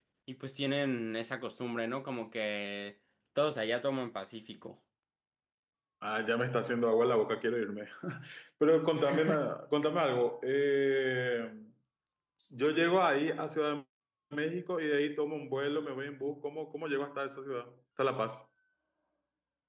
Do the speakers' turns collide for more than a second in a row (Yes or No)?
No